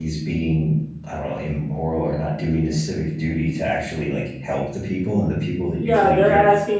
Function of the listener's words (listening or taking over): taking over